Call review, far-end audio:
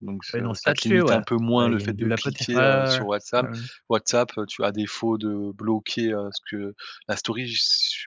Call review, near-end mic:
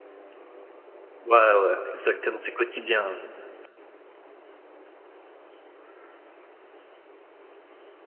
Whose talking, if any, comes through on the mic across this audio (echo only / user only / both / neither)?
user only